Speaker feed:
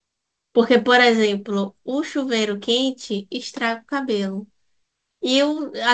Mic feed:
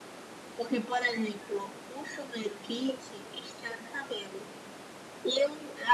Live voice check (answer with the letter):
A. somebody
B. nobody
B